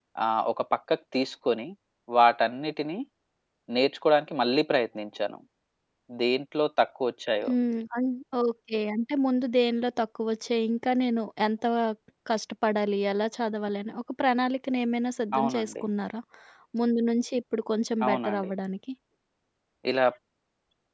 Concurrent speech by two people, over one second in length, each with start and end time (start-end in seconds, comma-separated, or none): none